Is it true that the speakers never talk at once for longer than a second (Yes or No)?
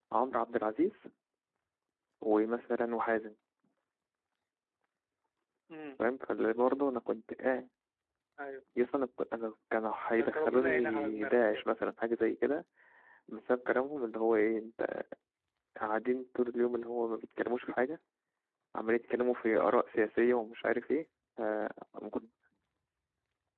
No